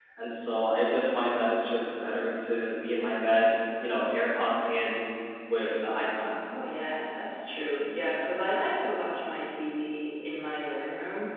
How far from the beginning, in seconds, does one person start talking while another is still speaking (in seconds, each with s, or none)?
none